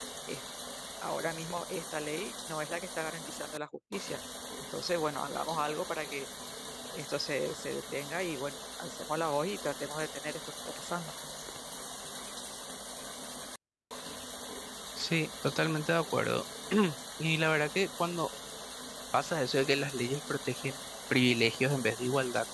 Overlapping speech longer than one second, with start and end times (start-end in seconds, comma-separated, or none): none